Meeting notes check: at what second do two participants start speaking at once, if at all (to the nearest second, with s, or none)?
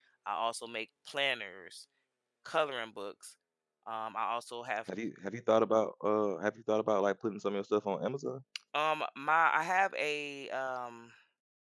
none